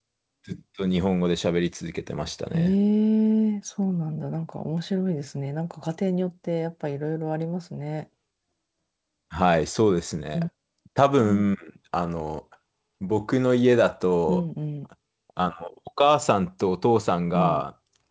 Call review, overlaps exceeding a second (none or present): none